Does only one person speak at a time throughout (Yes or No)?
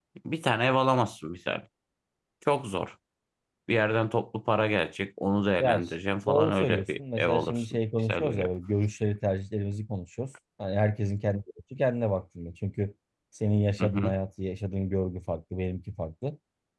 No